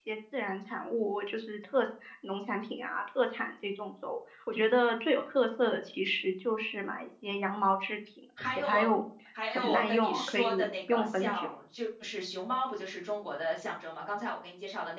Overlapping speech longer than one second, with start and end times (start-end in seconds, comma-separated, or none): 9.6-11.5